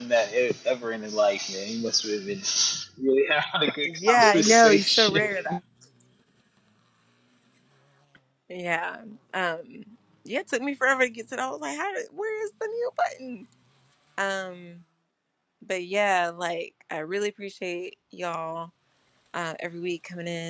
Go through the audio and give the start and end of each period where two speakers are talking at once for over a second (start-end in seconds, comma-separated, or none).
3.8-5.2